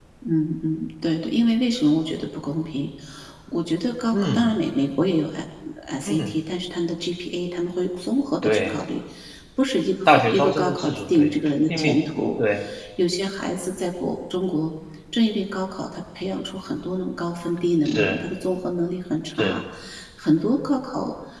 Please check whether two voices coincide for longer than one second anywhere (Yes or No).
Yes